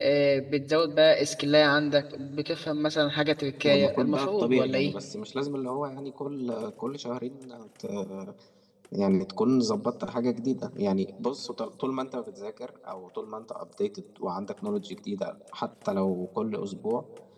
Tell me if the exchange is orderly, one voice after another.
No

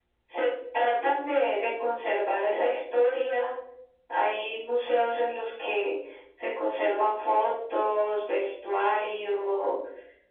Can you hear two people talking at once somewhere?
No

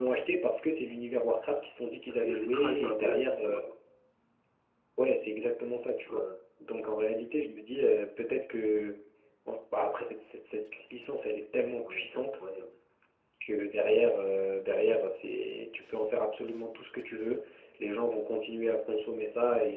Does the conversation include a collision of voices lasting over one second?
Yes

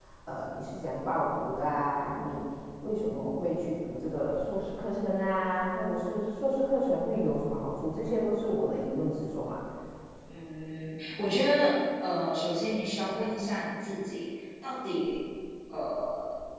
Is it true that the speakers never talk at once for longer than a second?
Yes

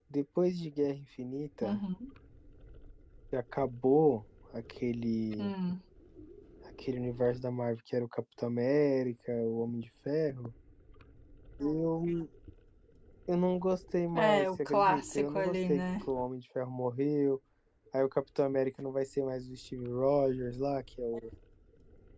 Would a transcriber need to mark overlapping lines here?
Yes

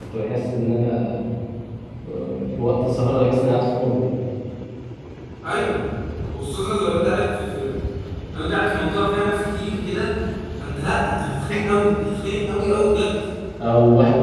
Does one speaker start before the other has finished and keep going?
No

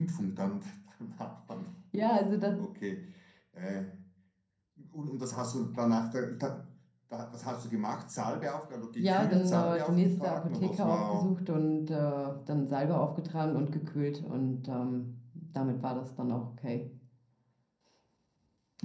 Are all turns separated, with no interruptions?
No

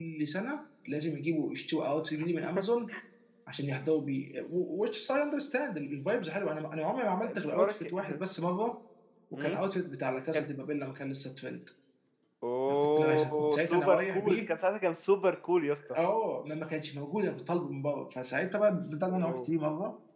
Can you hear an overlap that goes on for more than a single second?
Yes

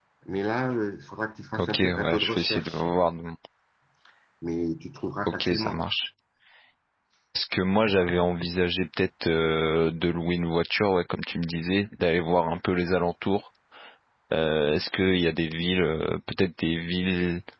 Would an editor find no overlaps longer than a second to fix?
No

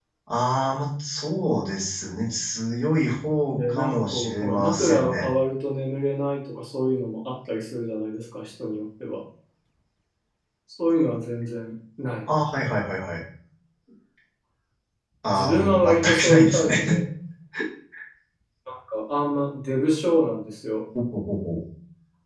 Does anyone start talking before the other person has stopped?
Yes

